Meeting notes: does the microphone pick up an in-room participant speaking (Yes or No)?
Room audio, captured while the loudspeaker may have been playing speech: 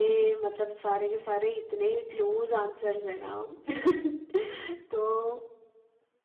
Yes